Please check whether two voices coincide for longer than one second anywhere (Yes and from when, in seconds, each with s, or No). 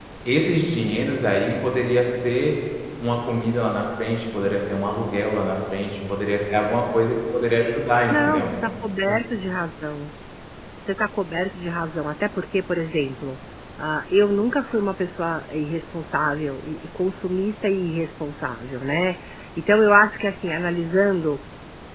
No